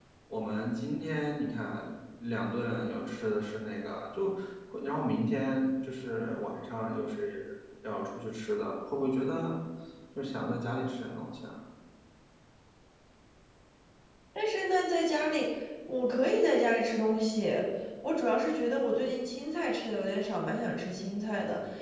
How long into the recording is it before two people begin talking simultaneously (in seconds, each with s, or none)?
none